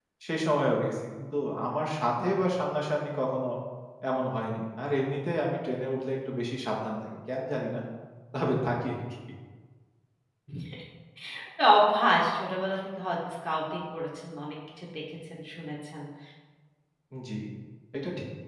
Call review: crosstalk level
none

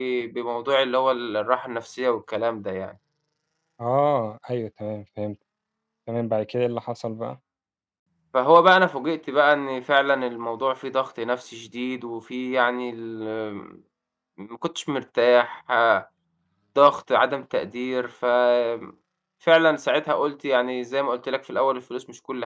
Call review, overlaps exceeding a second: none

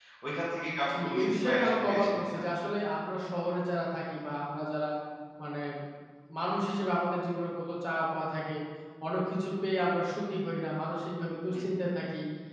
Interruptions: present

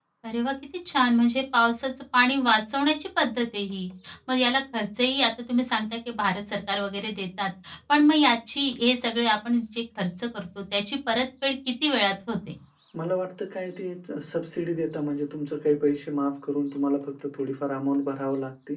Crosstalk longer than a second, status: none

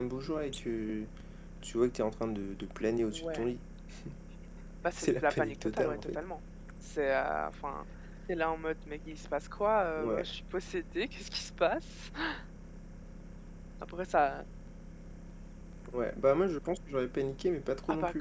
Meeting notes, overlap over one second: present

